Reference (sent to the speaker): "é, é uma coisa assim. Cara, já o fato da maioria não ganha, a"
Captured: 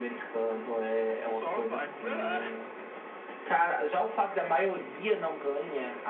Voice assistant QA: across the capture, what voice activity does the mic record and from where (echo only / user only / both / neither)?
both